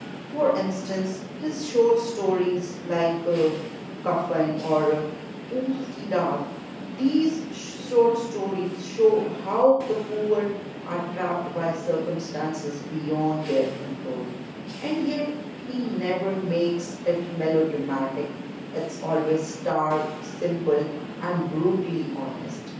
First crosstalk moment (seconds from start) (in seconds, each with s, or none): none